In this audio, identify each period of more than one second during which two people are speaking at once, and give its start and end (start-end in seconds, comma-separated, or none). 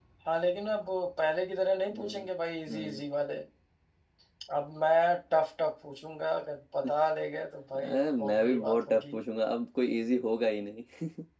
7.7-9.2